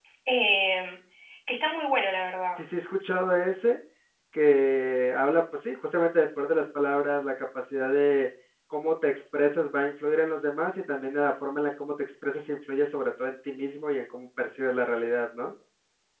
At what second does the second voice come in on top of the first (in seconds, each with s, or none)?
none